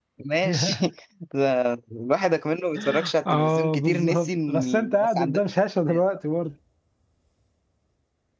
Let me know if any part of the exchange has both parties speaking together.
Yes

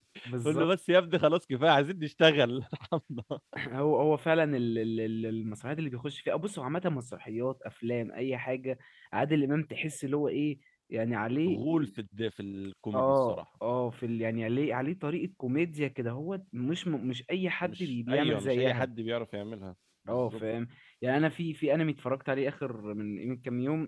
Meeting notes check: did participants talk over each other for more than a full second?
Yes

